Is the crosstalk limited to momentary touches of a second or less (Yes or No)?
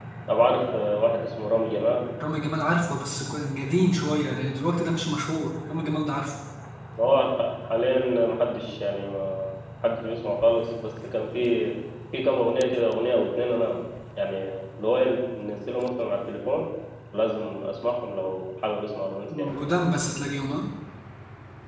Yes